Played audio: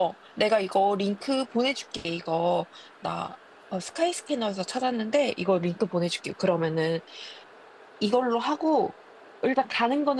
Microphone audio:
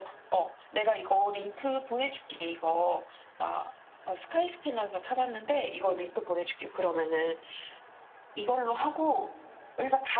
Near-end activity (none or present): none